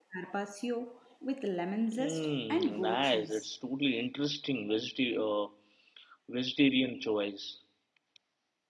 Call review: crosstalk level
present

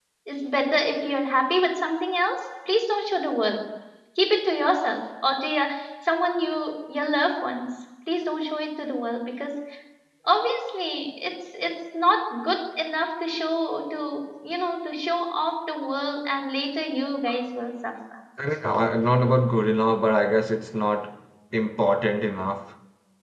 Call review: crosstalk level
none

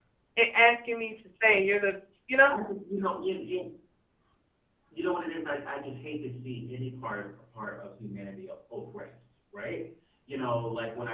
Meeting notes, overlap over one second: none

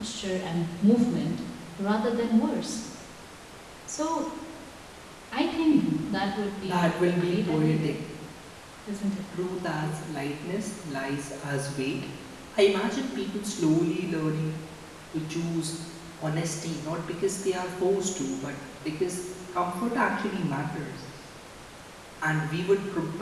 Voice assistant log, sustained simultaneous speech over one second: present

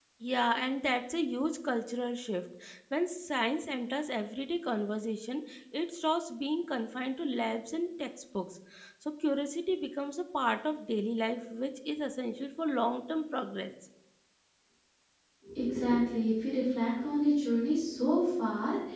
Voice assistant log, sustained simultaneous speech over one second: none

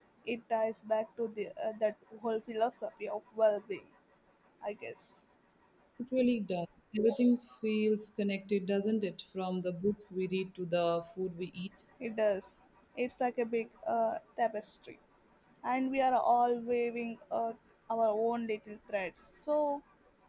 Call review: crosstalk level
none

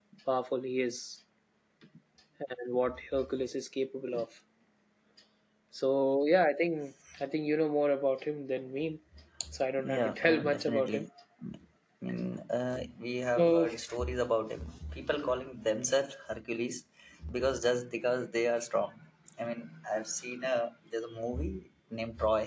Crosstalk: present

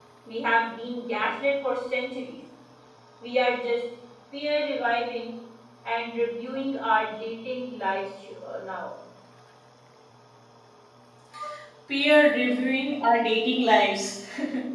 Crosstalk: none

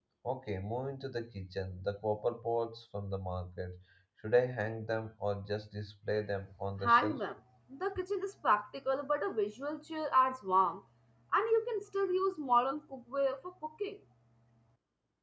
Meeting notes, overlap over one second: none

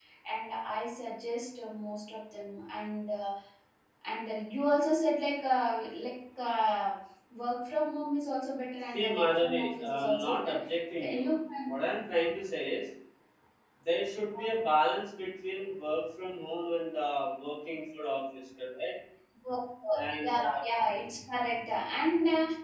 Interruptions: present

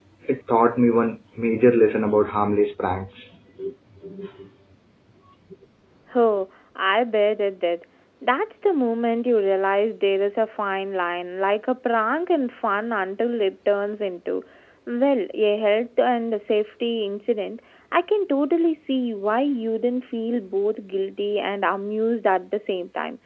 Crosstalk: none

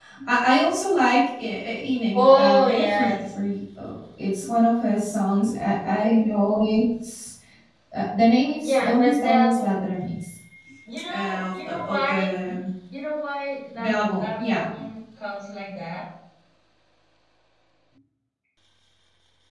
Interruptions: present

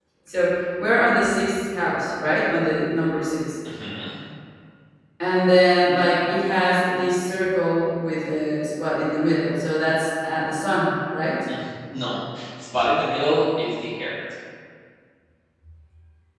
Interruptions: none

